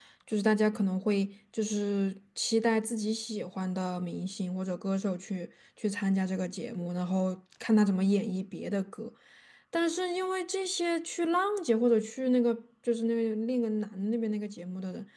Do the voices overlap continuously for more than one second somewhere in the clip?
No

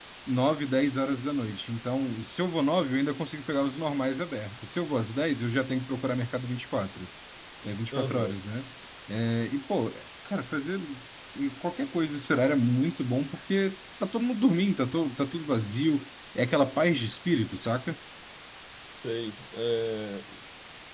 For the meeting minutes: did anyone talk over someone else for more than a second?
No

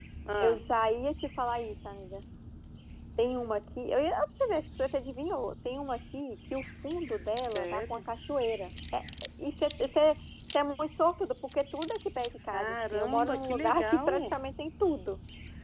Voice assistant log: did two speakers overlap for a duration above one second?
Yes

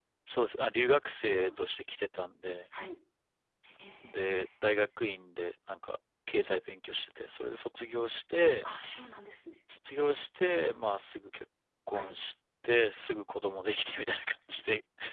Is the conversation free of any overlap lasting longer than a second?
Yes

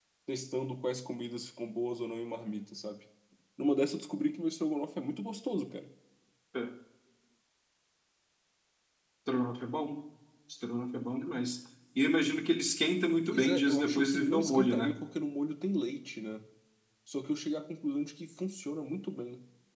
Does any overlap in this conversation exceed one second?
Yes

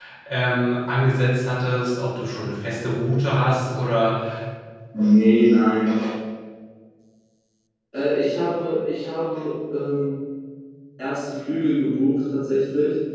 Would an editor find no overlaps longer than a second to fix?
Yes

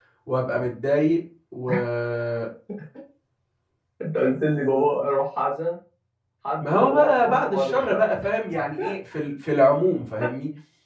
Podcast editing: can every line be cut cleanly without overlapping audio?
No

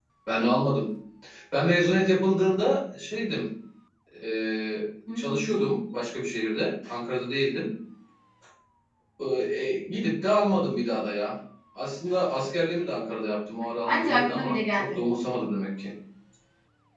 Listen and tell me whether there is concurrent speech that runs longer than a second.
Yes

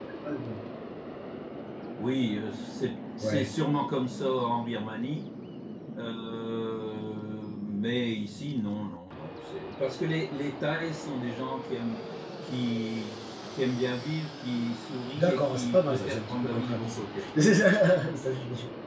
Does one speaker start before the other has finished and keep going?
Yes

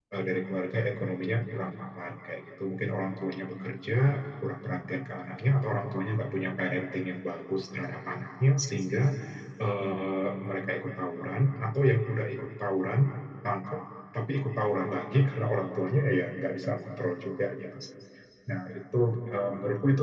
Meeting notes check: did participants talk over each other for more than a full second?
No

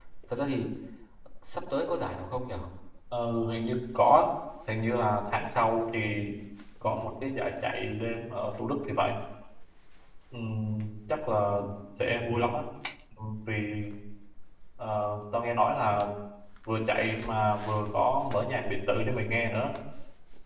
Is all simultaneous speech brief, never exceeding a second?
Yes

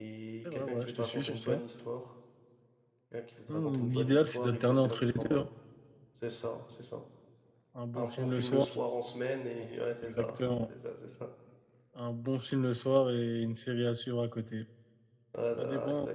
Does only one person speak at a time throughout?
No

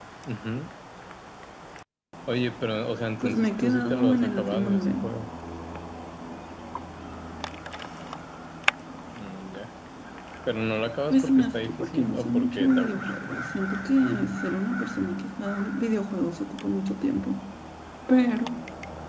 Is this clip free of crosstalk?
No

